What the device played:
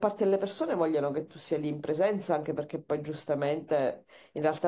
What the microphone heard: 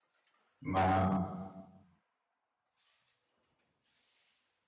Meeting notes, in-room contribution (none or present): present